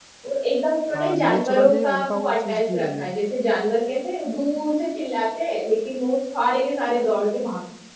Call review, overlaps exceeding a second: present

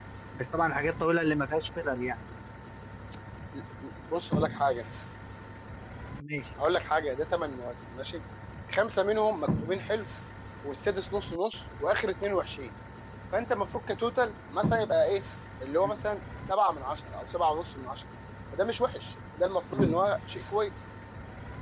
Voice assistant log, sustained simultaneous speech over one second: none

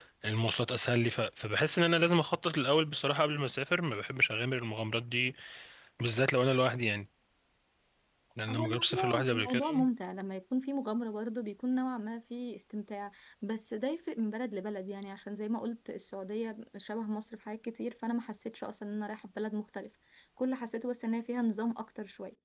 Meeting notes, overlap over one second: present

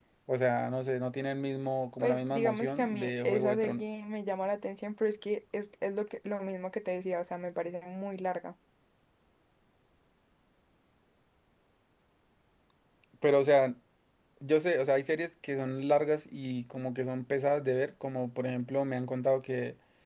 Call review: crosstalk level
present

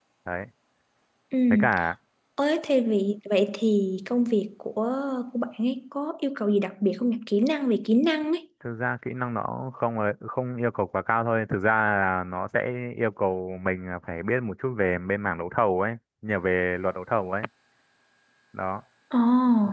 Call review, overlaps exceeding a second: none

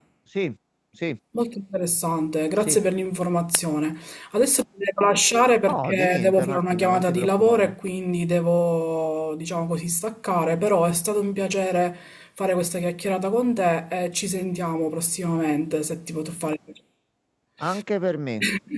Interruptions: present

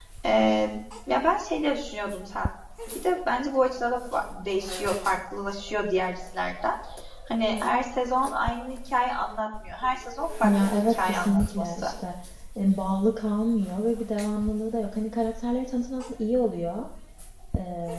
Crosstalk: present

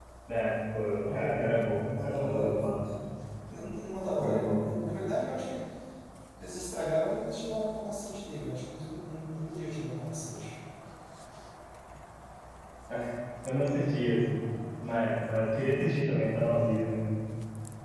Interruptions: present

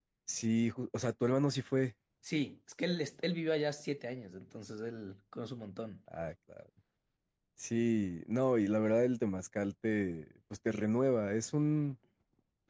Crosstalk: none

